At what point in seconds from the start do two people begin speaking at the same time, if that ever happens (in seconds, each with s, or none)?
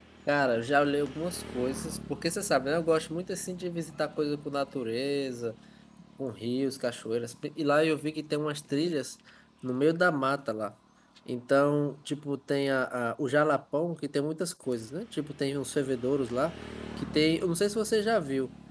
none